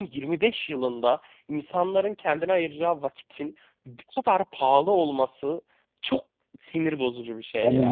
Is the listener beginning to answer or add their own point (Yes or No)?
Yes